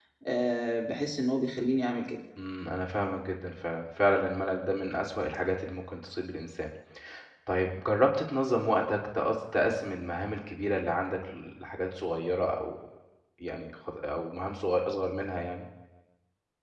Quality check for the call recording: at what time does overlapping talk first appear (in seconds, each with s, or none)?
none